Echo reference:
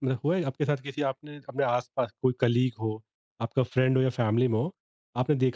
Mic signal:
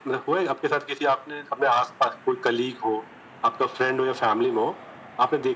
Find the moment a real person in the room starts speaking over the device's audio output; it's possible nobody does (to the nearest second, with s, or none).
none